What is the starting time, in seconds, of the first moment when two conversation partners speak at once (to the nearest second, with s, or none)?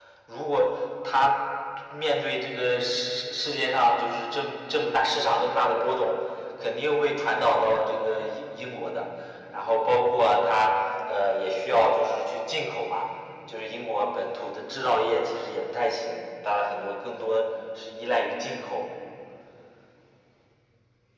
none